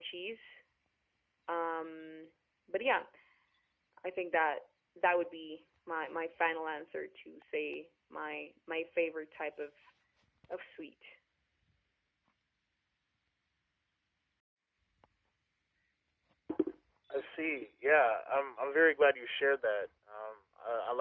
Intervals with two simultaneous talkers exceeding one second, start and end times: none

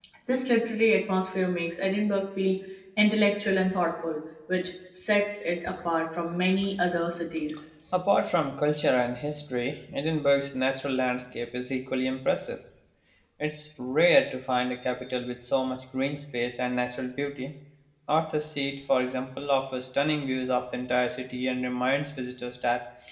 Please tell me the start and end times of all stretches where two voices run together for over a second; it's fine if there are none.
none

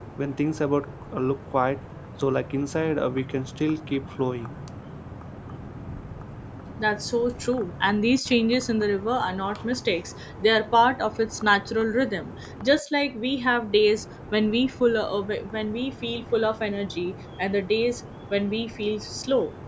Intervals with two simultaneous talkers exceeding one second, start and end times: none

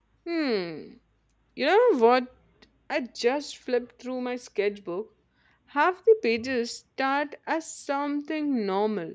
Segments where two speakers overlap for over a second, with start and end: none

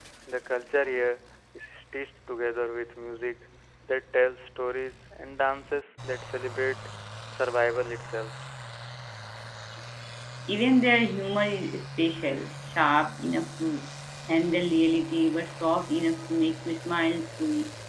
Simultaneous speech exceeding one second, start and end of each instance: none

